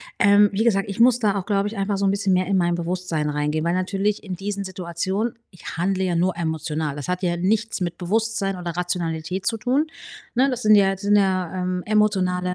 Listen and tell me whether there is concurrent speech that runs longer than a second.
No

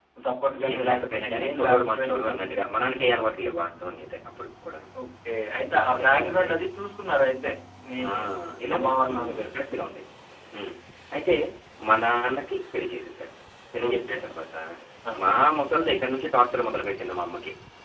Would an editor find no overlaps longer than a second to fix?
No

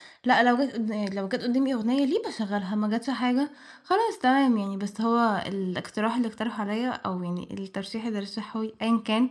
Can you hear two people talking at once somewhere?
No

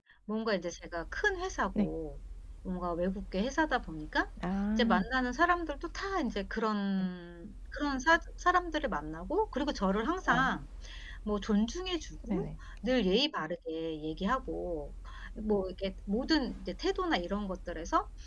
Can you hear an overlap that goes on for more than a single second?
No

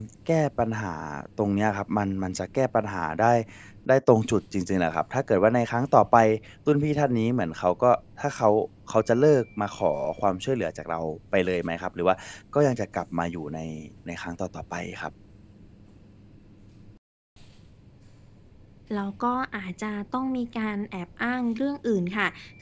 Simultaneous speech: No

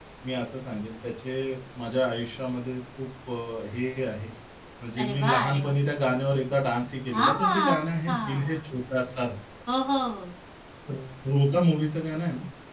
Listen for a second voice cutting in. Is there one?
Yes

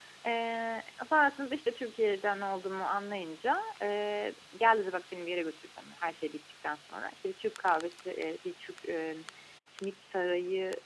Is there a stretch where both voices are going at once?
No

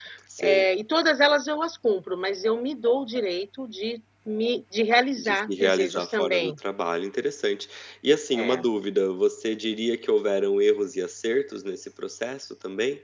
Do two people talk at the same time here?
Yes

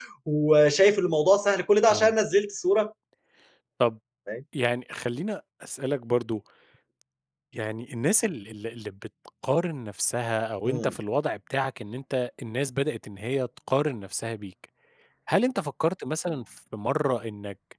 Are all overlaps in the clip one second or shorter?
Yes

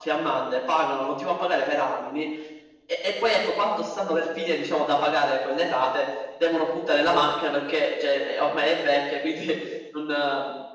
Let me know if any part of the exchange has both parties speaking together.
No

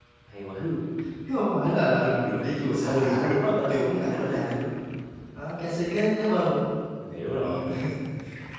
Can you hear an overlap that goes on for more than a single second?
Yes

